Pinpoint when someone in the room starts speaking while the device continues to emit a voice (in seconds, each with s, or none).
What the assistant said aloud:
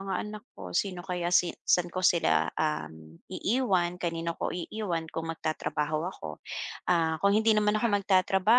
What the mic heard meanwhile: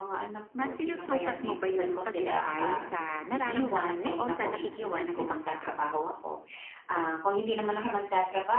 0.6 s